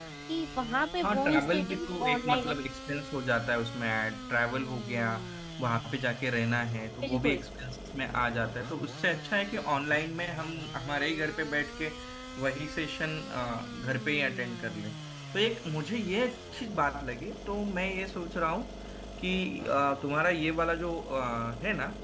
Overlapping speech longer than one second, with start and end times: 1.0-2.5

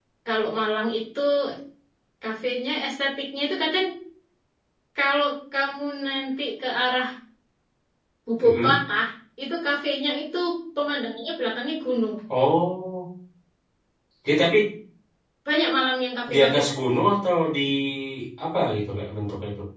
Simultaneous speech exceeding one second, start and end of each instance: none

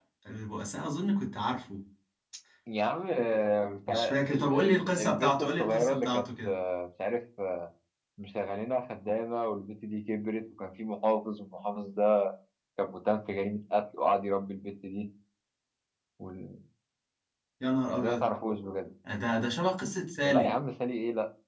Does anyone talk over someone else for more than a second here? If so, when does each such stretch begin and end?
3.9-6.5

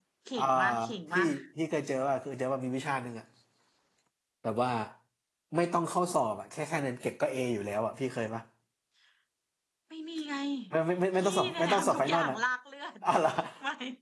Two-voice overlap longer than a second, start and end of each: 11.2-12.4

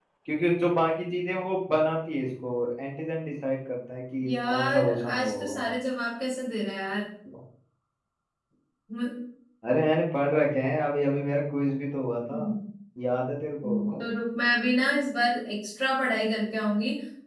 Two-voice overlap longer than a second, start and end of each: 4.3-5.6

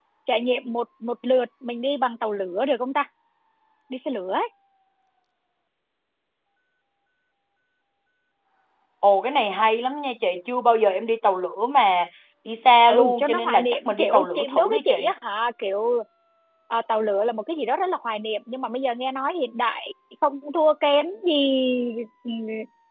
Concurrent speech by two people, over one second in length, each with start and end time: 12.9-14.9

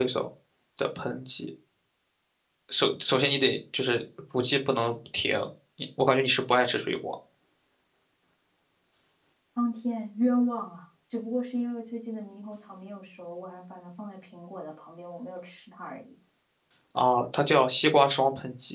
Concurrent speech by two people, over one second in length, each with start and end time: none

